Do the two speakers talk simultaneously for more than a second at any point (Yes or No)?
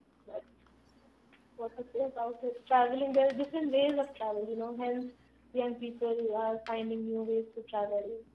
No